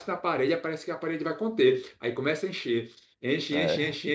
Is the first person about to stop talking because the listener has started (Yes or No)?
No